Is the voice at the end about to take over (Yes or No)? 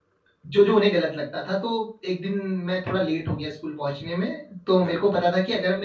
No